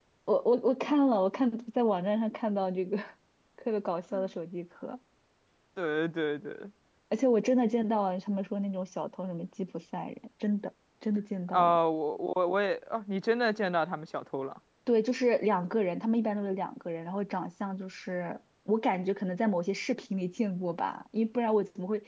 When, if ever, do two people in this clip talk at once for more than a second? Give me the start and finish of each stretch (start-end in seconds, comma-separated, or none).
none